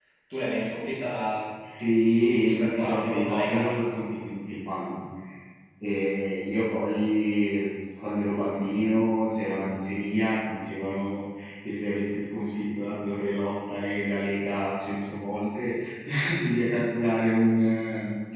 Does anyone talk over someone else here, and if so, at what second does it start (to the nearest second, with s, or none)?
2 s